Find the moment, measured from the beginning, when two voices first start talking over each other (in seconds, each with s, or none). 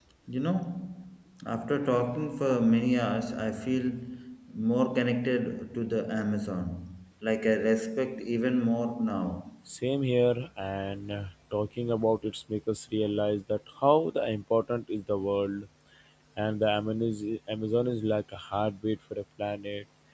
none